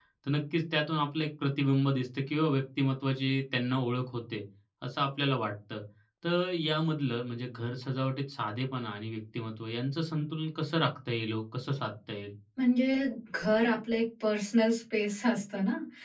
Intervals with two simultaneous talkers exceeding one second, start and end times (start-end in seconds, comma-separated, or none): none